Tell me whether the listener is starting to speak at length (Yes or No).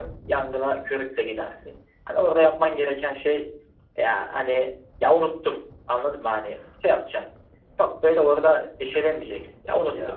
No